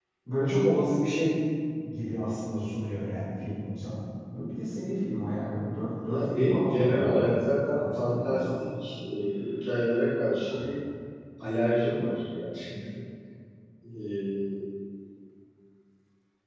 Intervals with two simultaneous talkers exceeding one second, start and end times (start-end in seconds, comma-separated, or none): 6.0-8.5